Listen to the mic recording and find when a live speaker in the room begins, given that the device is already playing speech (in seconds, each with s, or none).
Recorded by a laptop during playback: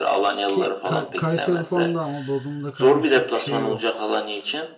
0.5 s